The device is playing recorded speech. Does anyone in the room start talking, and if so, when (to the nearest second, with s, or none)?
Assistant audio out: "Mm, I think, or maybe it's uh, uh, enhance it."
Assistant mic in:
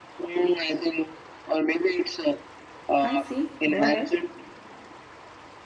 3 s